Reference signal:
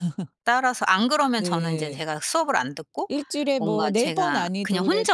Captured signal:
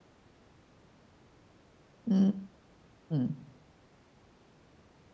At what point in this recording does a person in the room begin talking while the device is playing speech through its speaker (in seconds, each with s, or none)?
2.1 s